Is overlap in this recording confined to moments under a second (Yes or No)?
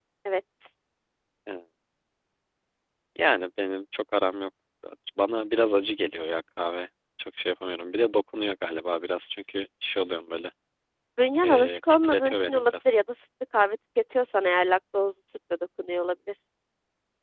No